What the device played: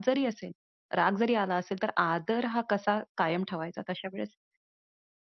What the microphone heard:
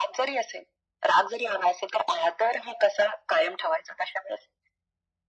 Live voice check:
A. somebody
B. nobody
B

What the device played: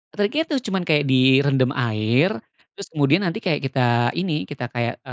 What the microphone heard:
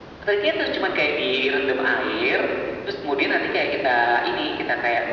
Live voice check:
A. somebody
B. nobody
B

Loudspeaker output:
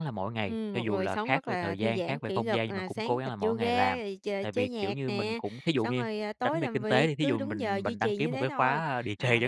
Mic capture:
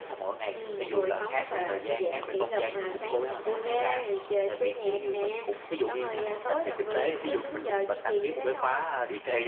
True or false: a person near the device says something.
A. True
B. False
B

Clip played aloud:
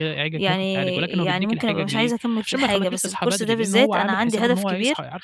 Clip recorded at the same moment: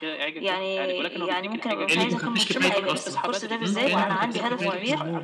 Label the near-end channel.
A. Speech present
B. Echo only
A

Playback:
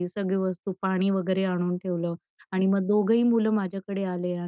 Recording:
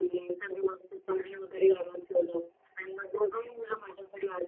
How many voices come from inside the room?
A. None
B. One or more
A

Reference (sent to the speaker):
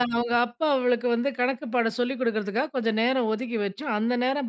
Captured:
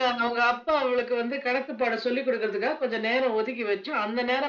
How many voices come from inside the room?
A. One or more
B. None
B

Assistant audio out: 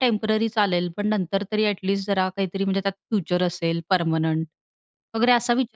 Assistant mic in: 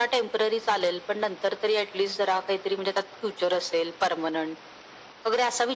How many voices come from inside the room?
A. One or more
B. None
B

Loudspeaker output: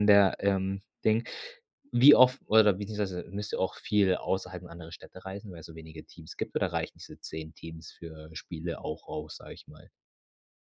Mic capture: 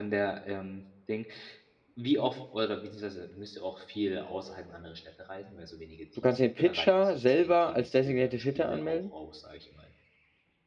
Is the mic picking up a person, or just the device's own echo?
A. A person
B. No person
A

